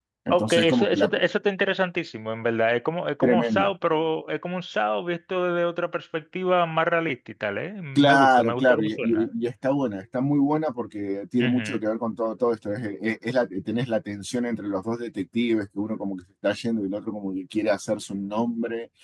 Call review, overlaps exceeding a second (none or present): present